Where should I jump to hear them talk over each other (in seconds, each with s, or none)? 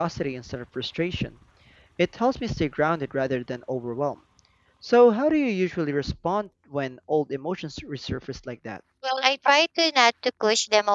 none